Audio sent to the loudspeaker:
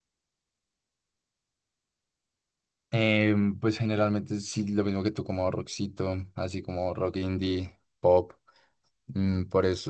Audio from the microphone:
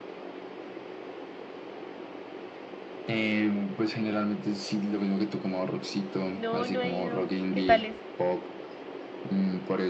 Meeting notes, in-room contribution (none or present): present